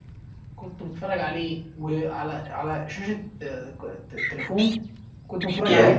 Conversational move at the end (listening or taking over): listening